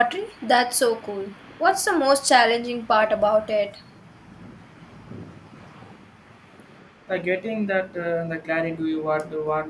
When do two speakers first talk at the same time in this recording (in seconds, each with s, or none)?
none